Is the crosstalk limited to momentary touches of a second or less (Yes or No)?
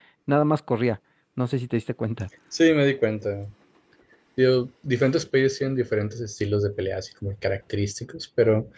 Yes